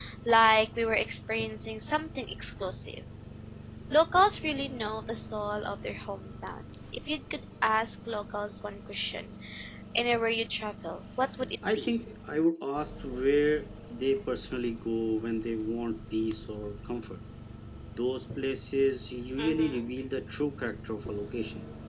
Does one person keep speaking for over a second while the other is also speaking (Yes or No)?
No